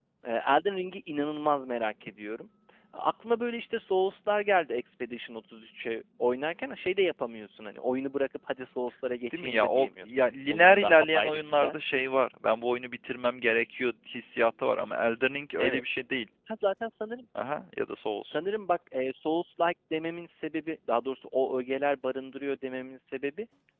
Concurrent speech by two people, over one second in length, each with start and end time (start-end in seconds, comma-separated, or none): 9.3-11.7